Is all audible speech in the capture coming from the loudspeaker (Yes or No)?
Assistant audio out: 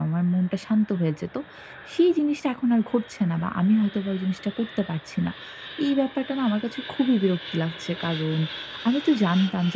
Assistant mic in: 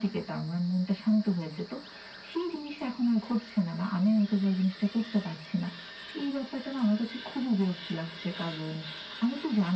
Yes